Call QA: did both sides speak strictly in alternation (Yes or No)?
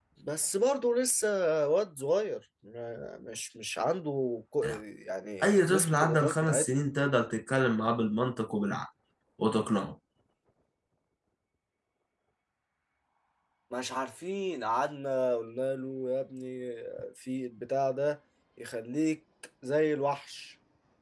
No